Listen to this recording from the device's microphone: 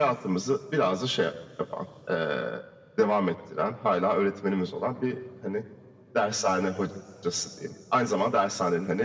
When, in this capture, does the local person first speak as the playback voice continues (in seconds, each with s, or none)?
none